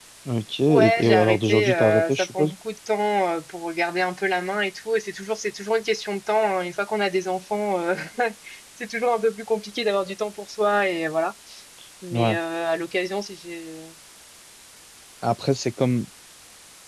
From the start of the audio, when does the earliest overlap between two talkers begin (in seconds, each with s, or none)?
0.7 s